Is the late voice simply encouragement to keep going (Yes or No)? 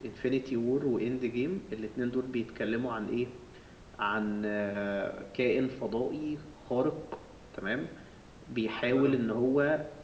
Yes